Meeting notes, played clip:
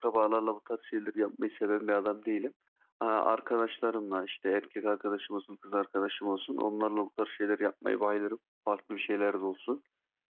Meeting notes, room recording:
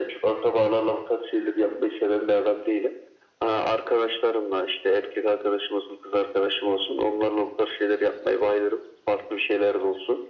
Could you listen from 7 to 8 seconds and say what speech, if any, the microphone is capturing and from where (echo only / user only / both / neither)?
echo only